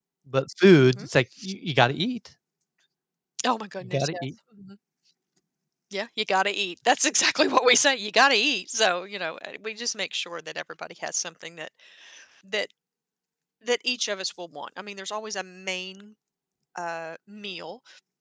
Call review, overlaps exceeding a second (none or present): none